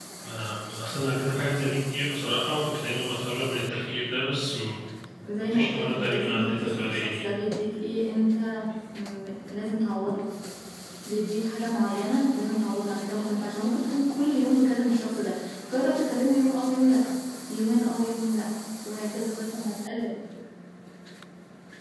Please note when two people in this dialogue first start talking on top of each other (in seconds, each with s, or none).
5.4 s